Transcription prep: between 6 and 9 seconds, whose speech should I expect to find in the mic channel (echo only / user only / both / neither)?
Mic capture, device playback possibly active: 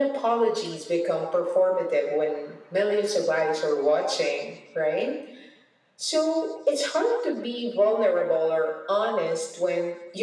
echo only